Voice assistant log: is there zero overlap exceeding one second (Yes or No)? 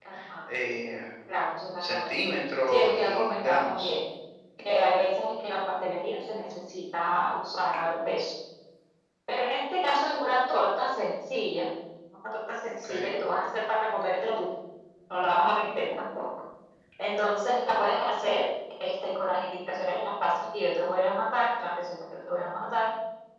No